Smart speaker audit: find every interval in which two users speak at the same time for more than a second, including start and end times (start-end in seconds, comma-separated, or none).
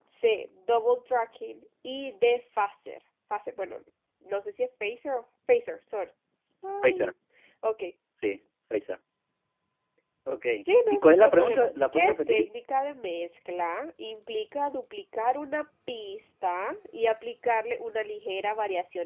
10.9-12.4